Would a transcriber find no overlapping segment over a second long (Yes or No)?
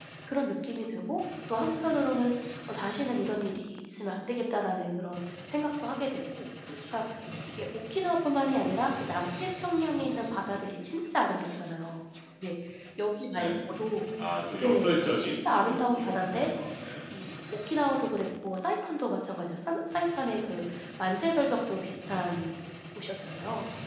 No